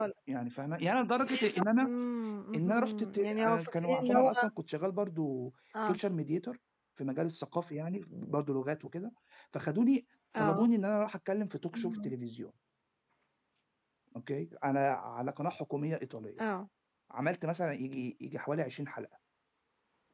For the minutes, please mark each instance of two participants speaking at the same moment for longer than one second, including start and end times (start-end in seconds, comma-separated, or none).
2.5-4.3